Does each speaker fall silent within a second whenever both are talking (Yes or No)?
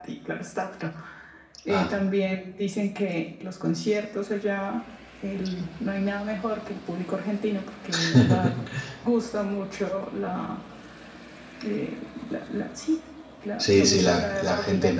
No